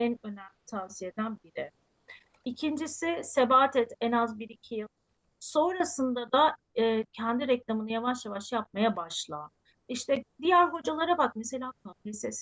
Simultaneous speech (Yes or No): No